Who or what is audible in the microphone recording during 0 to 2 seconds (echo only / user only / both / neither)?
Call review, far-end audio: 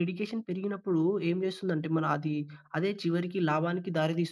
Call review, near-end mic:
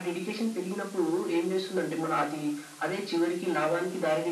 echo only